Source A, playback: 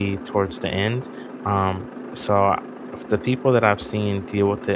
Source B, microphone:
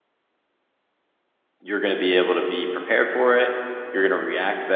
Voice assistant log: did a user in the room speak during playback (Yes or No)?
Yes